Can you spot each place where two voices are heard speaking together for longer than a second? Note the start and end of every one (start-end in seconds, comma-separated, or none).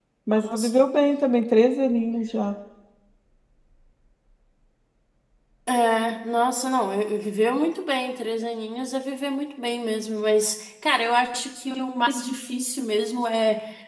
none